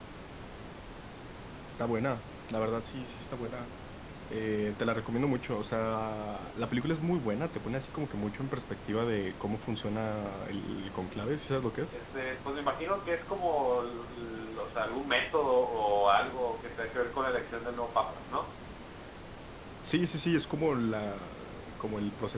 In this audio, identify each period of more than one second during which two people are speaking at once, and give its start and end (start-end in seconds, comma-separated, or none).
none